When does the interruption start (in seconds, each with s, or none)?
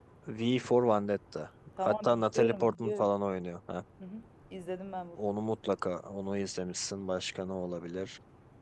1.8 s